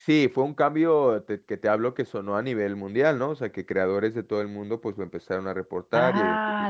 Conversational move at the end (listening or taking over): taking over